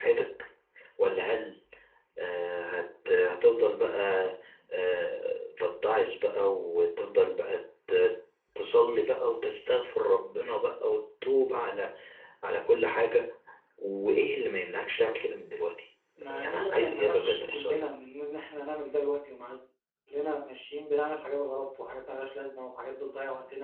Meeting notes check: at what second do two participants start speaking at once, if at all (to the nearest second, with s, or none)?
16 s